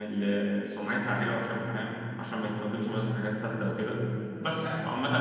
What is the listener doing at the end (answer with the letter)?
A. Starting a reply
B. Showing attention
B